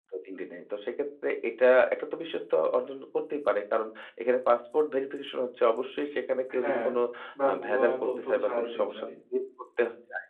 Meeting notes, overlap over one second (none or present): present